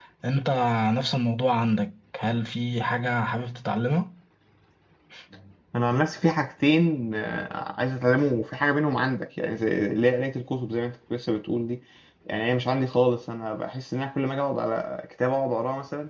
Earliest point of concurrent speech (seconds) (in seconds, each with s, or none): none